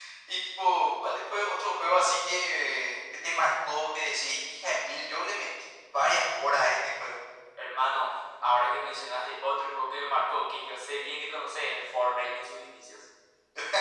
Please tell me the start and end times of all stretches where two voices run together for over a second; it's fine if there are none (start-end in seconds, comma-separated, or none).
none